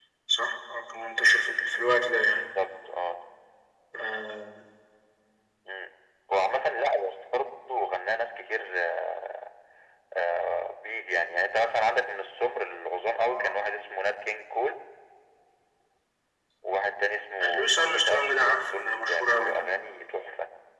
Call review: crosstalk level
present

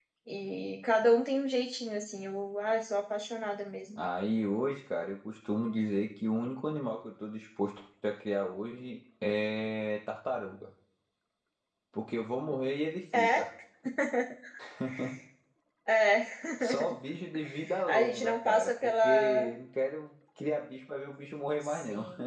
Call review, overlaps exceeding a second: present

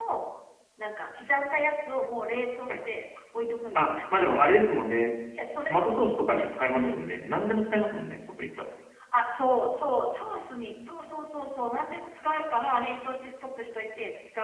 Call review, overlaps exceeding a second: none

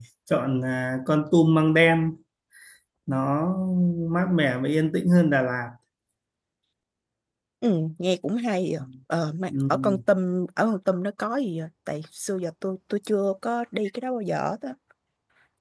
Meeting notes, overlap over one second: none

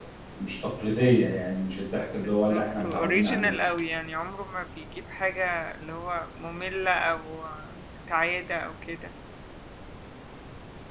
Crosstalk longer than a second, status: present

